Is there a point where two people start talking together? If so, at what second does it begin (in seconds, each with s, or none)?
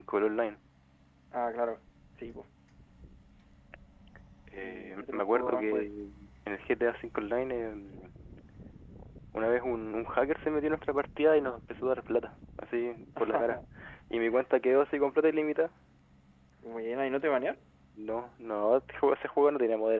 4.6 s